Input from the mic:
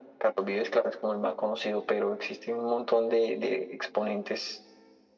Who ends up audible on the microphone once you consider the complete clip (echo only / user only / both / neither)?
echo only